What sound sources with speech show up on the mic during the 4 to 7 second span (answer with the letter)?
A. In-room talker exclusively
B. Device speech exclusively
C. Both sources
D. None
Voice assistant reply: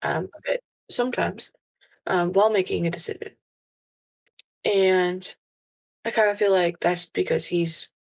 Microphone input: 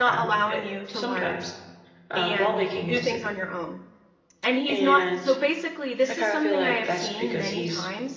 C